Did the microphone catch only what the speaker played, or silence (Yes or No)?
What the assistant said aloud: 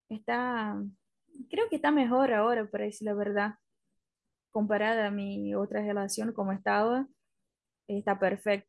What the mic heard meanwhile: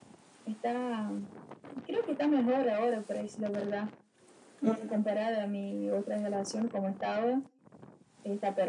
No